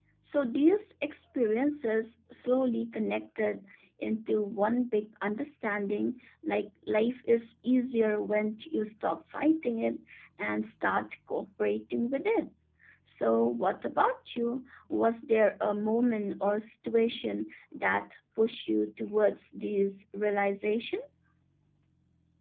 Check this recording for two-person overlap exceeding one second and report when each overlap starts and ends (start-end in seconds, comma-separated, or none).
none